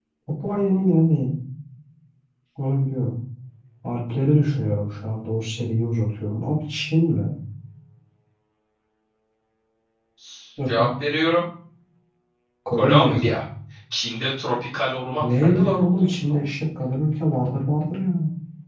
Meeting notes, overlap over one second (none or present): present